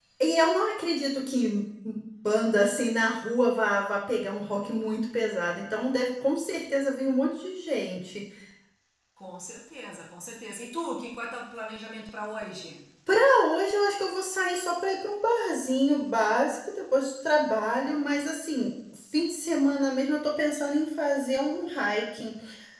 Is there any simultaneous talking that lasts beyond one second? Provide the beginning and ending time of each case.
none

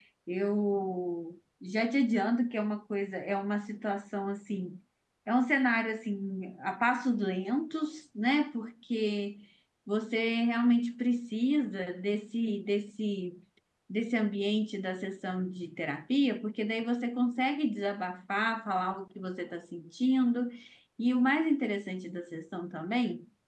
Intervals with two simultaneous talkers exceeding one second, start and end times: none

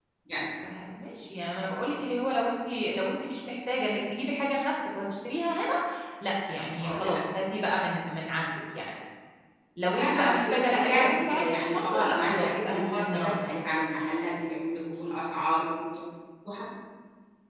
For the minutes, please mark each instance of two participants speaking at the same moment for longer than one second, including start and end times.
9.8-13.5

